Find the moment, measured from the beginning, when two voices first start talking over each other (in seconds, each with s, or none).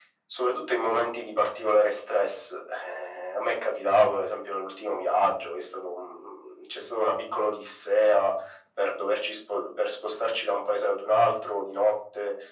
none